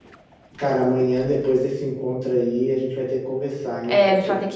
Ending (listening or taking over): taking over